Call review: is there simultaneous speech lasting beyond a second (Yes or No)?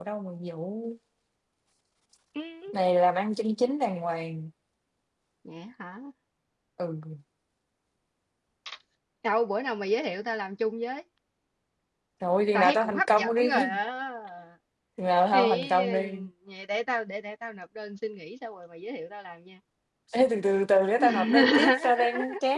Yes